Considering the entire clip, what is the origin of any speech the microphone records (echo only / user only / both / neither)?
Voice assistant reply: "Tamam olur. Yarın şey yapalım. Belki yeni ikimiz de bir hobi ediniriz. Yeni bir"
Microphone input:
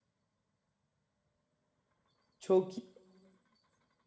user only